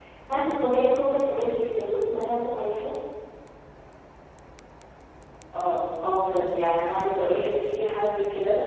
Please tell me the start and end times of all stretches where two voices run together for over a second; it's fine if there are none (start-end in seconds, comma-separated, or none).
none